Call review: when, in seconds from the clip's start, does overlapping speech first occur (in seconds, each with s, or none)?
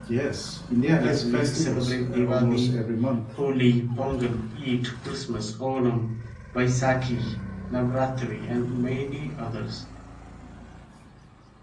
1.0 s